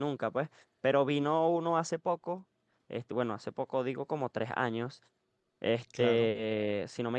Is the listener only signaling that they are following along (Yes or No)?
Yes